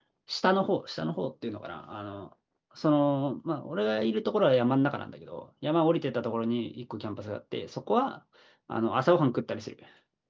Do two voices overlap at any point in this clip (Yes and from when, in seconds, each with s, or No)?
No